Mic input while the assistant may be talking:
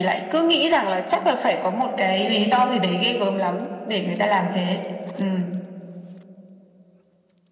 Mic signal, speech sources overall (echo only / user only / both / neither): echo only